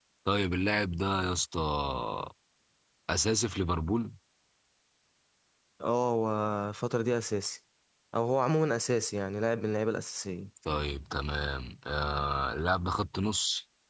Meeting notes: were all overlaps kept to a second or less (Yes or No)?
Yes